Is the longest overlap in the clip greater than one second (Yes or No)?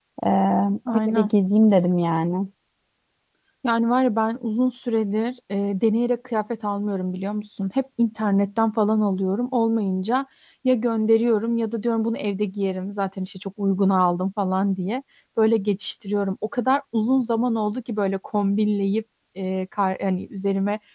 No